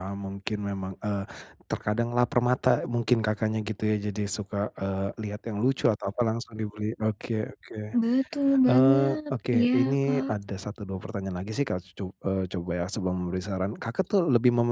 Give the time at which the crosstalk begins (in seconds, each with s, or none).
8.7 s